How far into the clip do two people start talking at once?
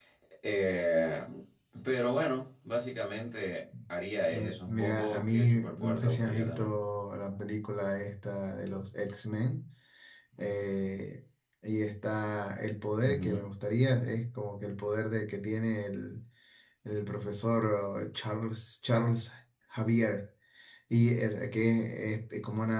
4 s

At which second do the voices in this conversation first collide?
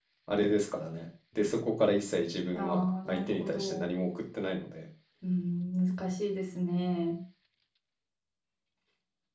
3 s

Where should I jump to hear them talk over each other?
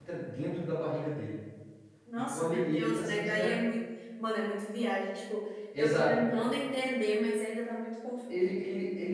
2 s

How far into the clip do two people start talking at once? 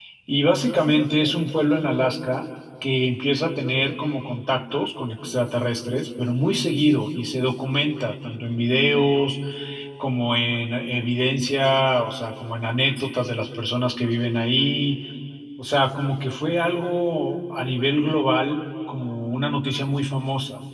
none

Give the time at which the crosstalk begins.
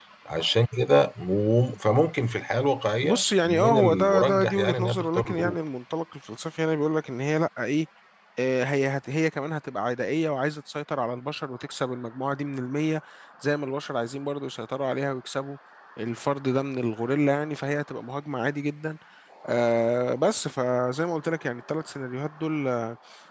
3 s

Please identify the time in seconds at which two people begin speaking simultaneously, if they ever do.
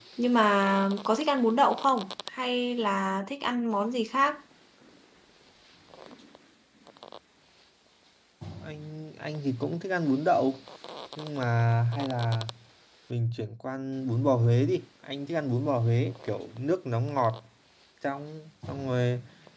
none

